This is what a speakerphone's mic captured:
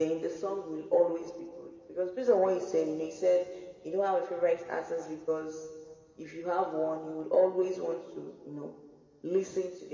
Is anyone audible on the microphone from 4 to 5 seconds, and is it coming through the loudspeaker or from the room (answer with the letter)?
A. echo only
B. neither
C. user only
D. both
A